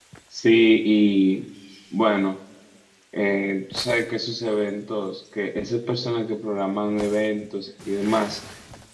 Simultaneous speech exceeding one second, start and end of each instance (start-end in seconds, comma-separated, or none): none